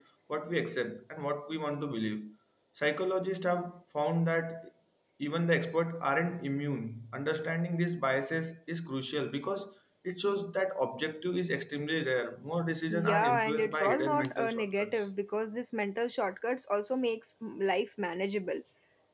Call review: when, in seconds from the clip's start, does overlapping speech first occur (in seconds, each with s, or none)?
12.9 s